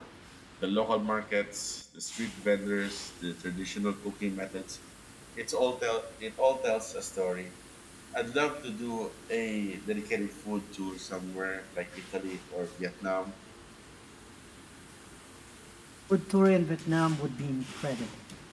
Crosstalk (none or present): none